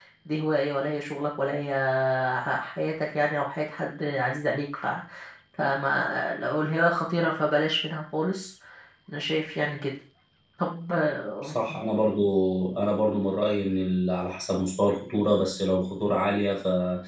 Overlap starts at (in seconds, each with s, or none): none